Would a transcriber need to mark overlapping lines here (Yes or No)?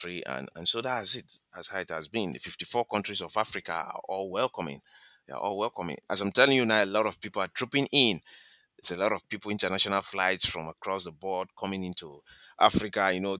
No